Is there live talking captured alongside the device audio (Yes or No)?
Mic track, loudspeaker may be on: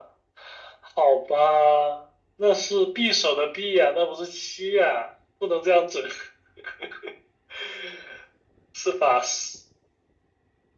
No